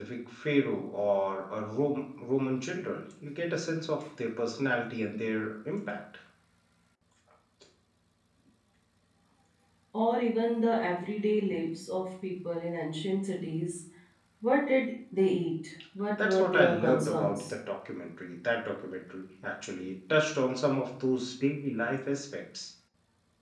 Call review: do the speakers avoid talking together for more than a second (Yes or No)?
No